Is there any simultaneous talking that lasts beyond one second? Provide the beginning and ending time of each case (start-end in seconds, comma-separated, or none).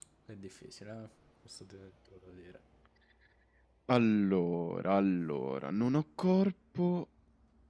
none